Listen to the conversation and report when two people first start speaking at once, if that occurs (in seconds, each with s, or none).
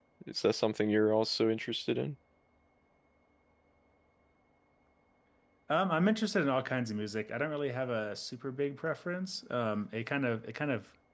none